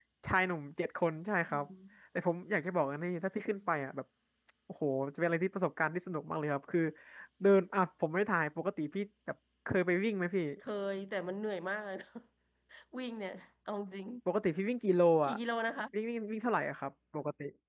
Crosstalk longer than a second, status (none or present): none